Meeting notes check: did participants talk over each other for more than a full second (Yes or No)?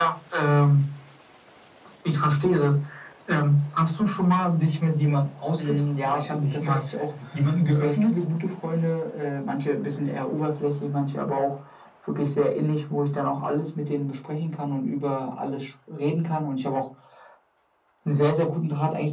Yes